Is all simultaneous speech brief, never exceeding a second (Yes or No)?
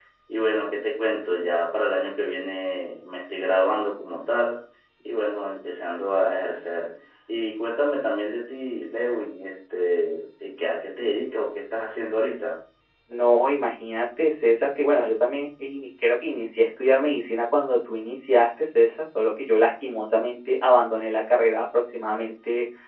Yes